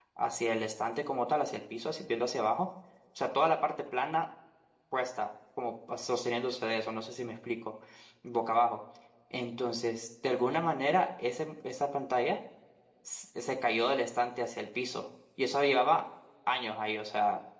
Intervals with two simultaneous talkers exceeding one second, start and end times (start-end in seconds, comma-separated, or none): none